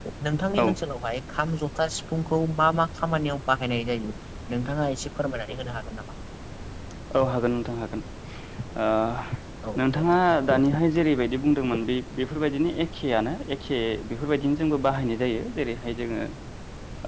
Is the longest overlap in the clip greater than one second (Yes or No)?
No